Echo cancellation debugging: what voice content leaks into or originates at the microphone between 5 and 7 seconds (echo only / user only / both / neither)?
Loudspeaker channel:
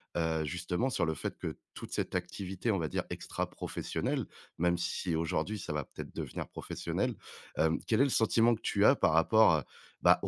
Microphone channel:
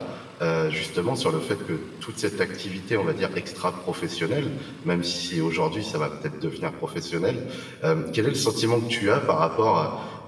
echo only